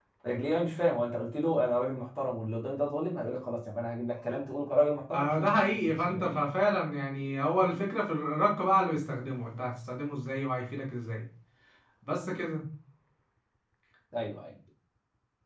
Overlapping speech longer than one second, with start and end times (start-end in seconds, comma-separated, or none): 5.1-6.4